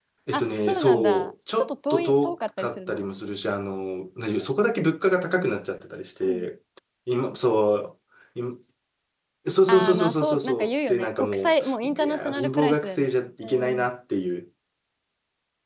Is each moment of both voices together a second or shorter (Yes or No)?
No